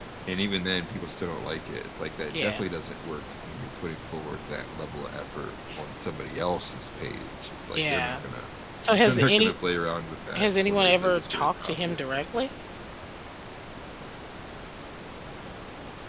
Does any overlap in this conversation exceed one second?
Yes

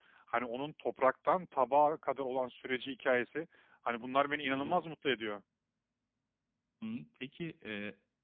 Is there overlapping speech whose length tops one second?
No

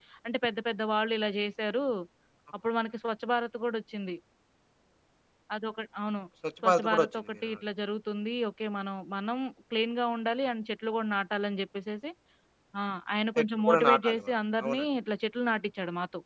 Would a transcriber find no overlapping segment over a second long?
No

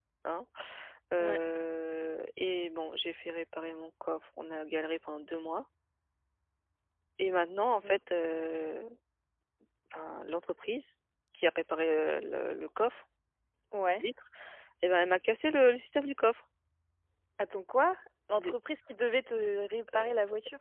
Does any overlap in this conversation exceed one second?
No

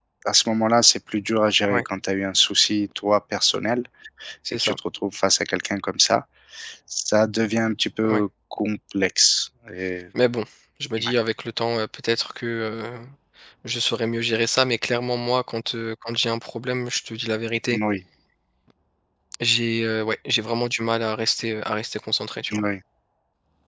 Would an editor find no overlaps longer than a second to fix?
Yes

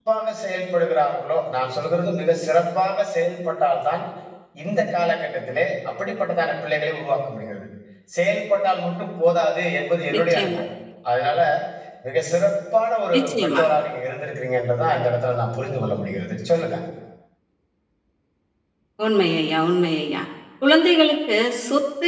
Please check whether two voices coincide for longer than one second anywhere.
No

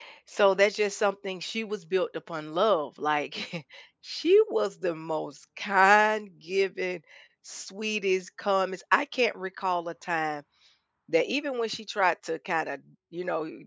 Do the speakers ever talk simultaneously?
No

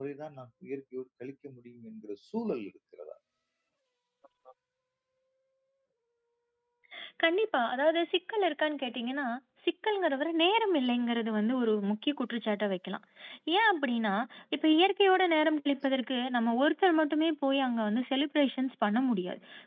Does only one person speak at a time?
Yes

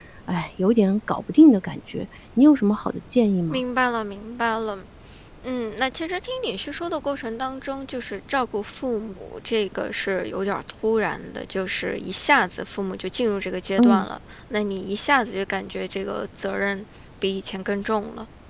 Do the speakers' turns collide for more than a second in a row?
No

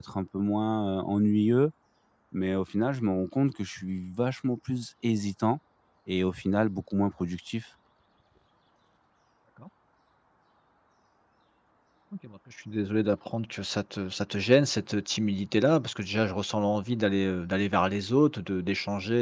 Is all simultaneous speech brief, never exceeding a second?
Yes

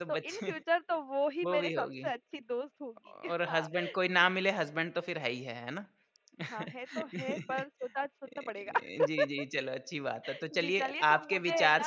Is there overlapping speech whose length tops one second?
Yes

